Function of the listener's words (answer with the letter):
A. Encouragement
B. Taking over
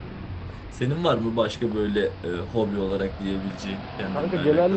B